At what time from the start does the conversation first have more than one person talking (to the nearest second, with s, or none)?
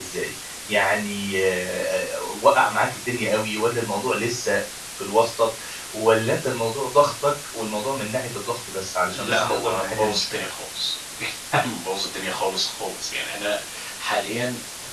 9 s